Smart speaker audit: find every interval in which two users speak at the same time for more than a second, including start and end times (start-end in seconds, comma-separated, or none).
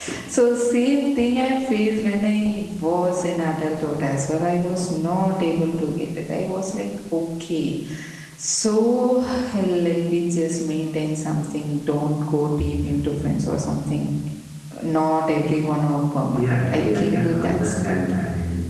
16.3-18.0